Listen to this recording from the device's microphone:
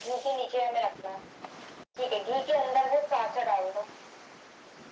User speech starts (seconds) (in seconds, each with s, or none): none